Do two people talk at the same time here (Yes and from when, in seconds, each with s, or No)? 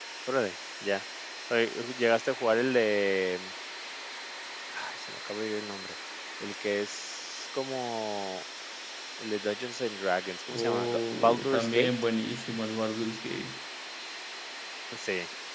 Yes, from 10.5 s